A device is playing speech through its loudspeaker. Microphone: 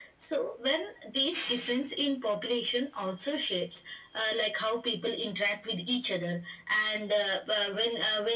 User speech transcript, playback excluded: none

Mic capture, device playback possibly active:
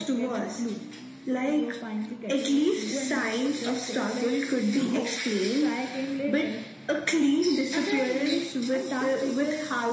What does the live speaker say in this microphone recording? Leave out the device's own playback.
none

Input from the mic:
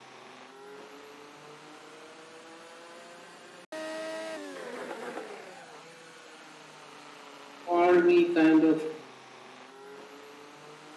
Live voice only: all we kind of

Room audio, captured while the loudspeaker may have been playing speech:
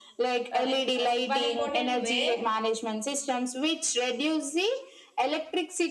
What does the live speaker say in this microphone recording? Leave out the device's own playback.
uh, like uh, one important way

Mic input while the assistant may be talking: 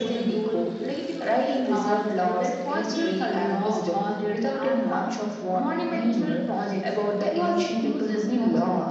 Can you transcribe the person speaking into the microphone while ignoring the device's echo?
none

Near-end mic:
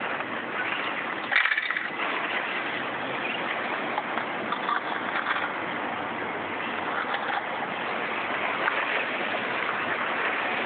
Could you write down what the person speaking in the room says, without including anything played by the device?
none

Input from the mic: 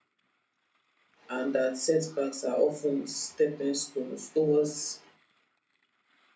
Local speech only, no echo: and that setbacks are often stepping stones towards

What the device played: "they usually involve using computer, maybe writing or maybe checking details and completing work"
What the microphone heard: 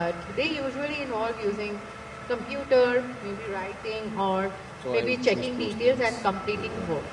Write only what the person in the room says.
So I would choose those things over

